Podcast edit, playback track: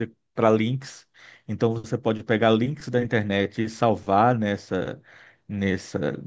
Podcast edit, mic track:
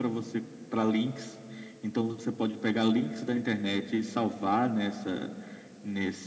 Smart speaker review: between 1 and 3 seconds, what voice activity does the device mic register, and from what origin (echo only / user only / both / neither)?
echo only